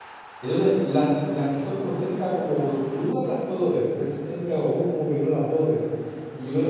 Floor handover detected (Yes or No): No